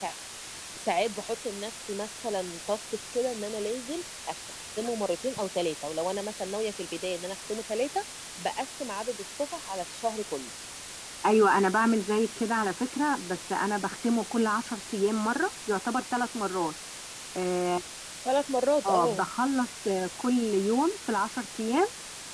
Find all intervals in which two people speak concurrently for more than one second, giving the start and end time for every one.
none

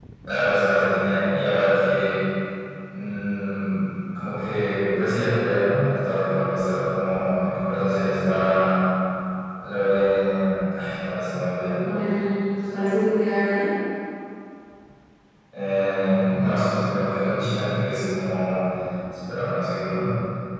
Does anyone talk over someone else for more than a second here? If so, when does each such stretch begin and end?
none

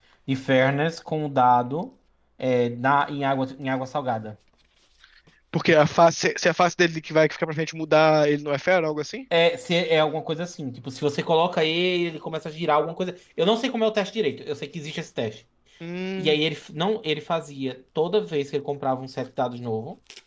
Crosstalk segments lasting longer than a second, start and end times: none

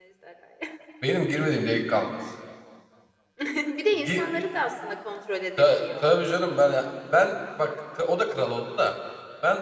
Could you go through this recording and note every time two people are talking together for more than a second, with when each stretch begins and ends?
none

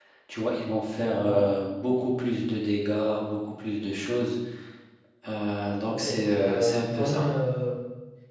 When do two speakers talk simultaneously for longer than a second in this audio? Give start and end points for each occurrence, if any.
5.9-7.3

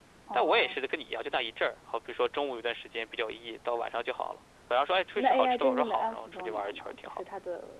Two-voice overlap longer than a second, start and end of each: 5.2-7.2

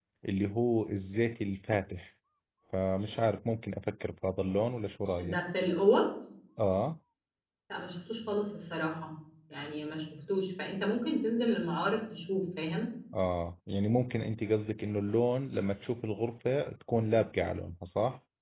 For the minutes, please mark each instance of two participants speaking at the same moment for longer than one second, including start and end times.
none

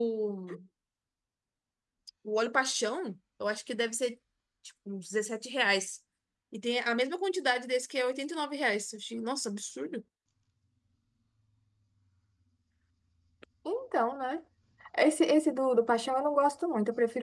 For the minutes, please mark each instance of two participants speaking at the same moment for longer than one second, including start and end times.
none

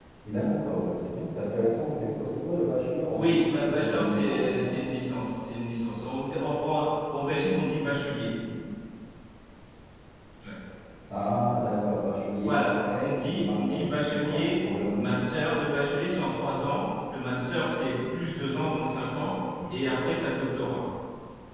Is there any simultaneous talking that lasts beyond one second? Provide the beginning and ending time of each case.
3.1-4.8, 12.4-15.2

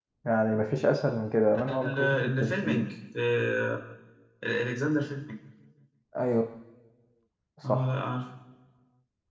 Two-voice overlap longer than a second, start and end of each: 1.7-2.9

